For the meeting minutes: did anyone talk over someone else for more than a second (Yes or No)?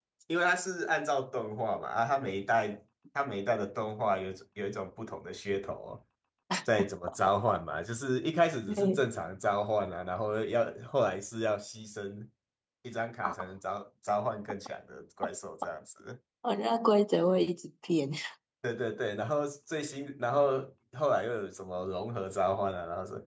No